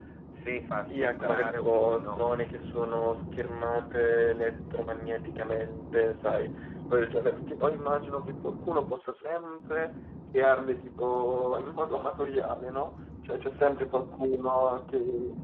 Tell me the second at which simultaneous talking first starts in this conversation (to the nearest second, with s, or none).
1 s